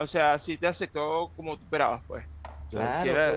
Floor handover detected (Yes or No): Yes